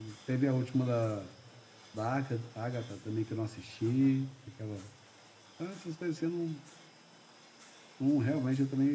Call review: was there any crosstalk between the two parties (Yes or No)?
No